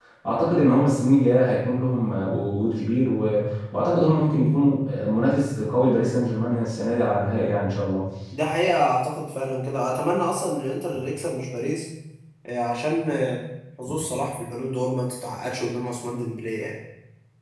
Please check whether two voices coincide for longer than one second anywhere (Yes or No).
No